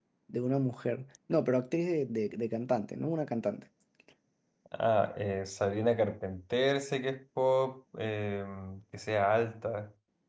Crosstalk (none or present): none